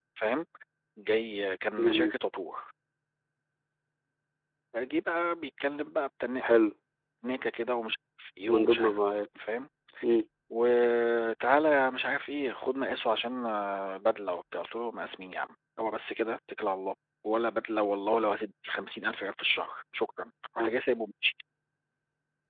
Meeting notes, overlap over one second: none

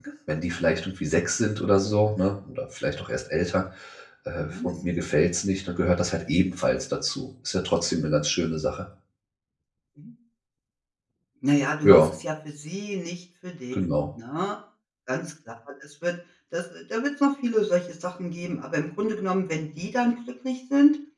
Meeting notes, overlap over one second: none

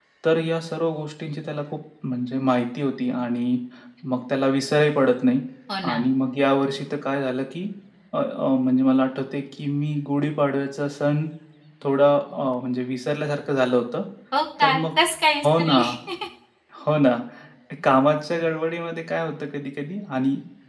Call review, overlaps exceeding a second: none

